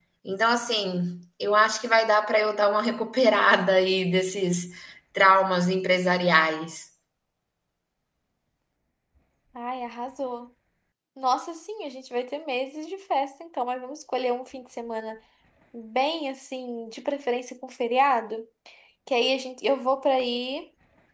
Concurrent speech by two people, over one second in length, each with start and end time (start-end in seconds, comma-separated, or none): none